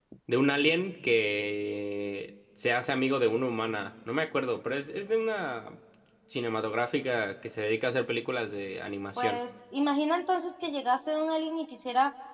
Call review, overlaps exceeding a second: none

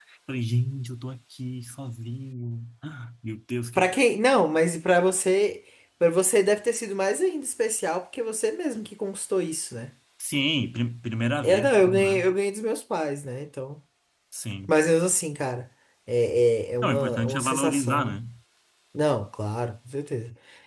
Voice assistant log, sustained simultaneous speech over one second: present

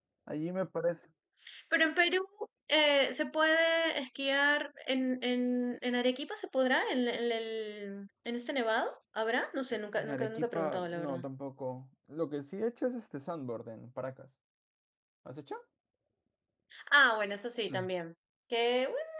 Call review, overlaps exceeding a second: present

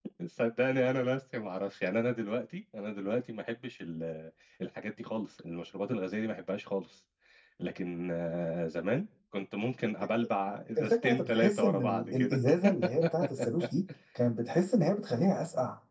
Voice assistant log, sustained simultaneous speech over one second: present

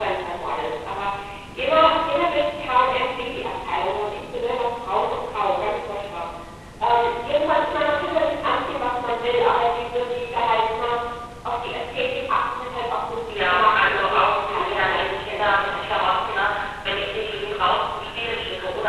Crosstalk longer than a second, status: present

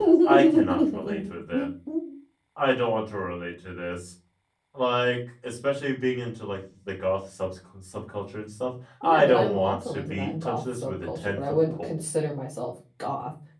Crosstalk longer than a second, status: present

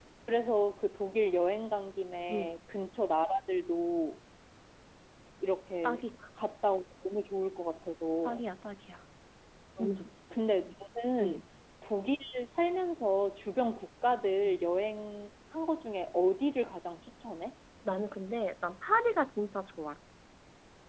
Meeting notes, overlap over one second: none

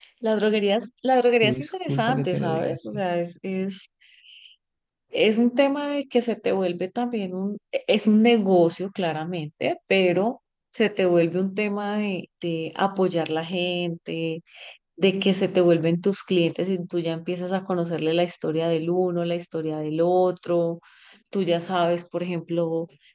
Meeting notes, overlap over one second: present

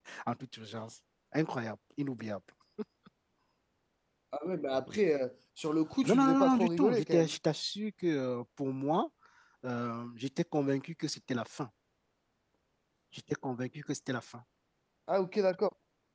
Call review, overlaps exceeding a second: present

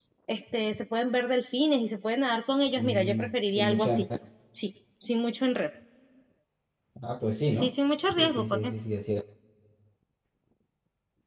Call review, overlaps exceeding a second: present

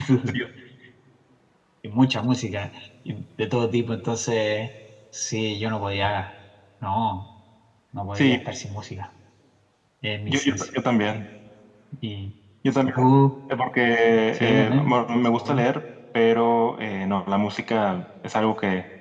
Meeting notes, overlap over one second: present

